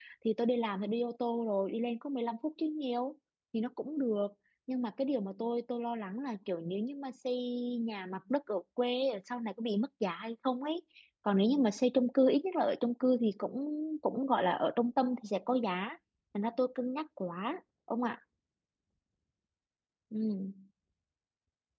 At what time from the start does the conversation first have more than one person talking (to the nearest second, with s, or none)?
none